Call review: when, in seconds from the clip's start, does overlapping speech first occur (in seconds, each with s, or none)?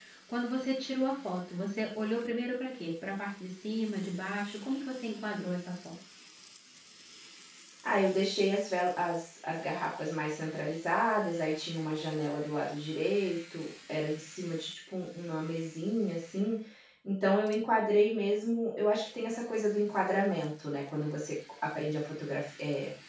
none